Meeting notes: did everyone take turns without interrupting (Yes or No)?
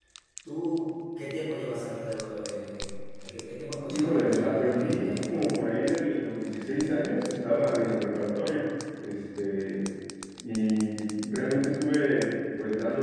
No